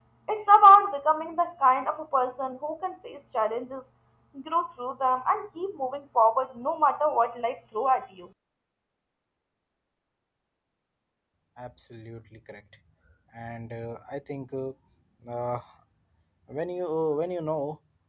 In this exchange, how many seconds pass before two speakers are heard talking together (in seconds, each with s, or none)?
none